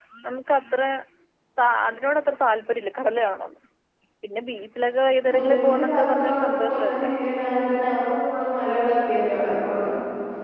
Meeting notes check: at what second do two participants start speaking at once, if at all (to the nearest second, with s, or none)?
5 s